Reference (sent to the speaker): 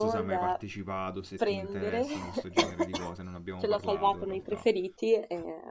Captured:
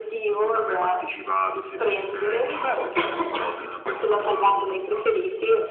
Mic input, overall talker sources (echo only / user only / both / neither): both